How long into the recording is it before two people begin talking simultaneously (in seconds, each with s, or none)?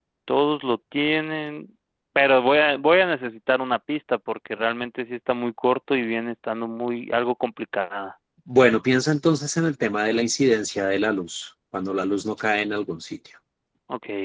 none